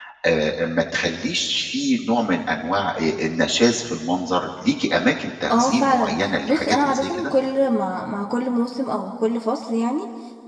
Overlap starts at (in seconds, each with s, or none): 5.5 s